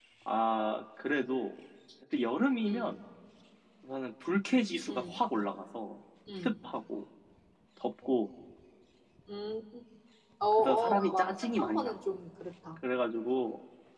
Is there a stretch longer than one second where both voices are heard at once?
Yes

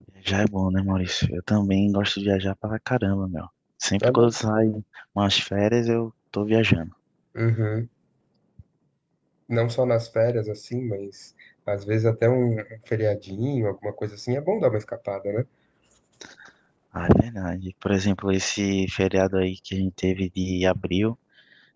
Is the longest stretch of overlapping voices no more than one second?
Yes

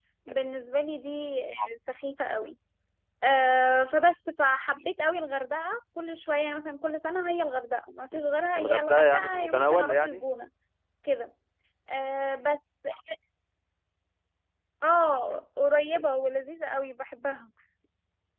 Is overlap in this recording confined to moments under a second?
No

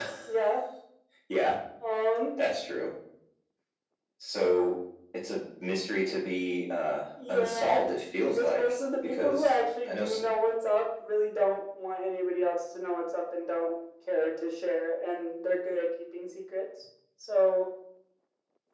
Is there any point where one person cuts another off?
Yes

